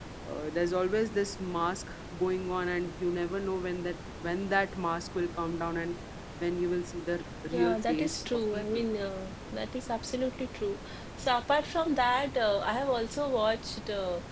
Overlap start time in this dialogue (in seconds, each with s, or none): 7.5 s